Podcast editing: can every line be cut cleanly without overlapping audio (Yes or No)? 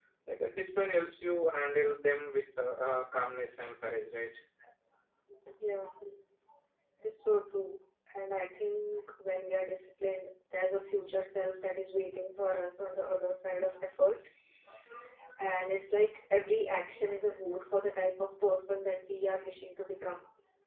Yes